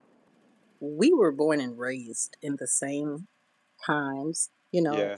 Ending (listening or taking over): listening